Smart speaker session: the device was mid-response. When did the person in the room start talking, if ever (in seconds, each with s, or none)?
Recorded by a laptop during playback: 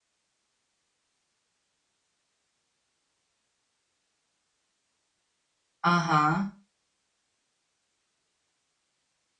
5.8 s